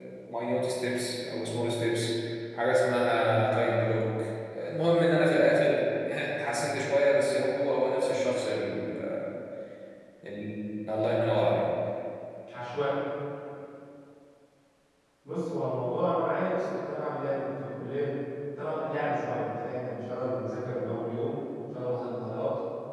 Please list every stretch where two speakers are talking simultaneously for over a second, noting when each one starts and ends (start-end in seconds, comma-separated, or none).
none